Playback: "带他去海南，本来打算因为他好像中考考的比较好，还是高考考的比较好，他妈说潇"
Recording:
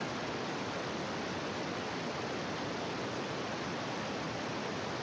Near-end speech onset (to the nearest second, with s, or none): none